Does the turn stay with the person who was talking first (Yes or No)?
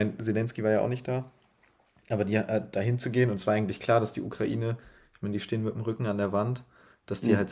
Yes